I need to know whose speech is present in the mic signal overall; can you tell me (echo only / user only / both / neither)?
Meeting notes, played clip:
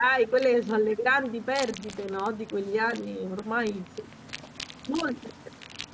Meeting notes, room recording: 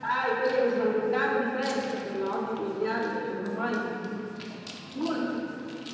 echo only